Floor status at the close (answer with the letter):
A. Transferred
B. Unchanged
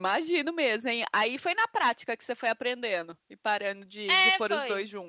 A